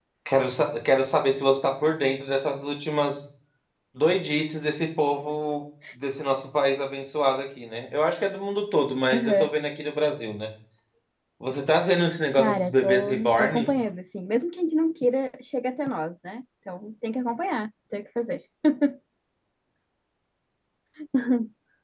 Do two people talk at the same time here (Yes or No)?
Yes